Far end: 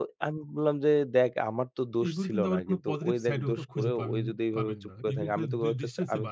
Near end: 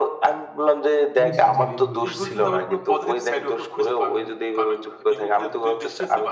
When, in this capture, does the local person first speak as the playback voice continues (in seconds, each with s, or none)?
1.2 s